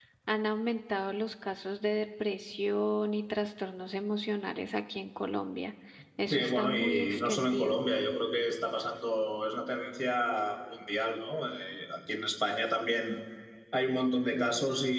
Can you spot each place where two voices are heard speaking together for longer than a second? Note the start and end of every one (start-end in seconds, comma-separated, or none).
6.3-7.8